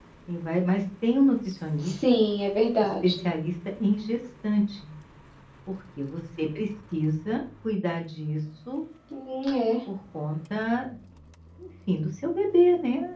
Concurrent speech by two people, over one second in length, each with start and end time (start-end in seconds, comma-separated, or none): none